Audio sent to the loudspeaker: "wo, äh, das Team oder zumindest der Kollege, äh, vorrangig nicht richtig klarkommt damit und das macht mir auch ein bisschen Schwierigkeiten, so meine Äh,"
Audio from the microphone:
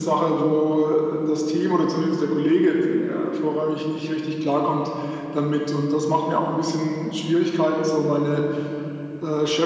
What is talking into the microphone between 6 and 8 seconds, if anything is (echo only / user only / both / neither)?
echo only